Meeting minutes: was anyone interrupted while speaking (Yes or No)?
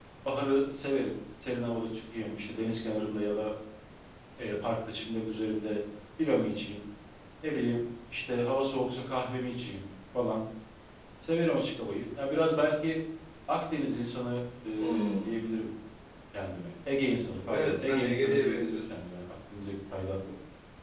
Yes